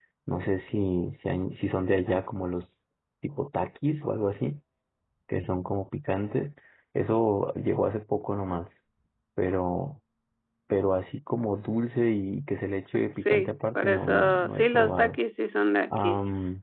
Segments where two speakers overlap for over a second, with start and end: 13.1-15.2

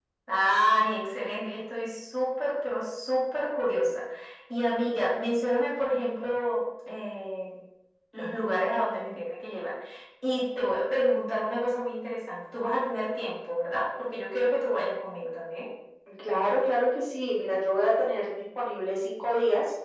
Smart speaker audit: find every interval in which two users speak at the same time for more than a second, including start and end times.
none

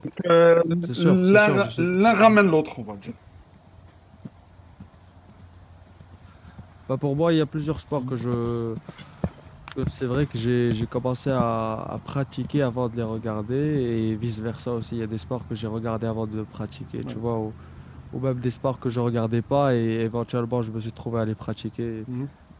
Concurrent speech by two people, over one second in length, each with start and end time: 0.8-2.4

